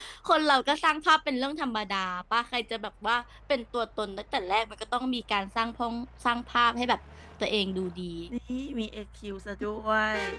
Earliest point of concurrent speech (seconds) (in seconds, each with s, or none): none